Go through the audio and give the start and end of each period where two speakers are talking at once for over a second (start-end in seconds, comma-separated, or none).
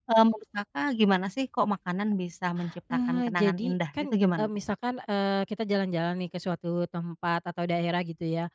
3.1-4.5